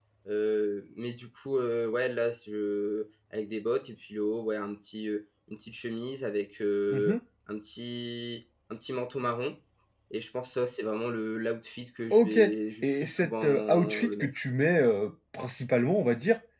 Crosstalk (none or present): present